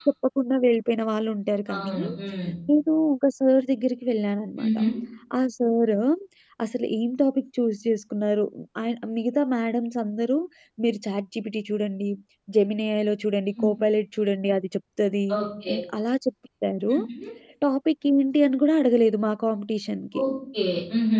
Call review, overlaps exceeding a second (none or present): none